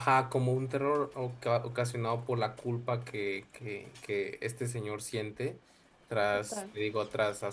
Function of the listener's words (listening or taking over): listening